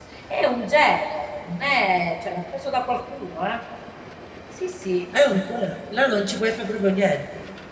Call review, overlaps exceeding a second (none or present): none